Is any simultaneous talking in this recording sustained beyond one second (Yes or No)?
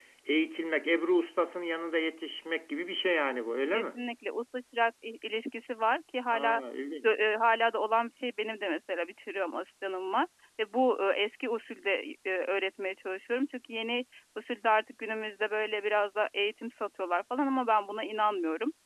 No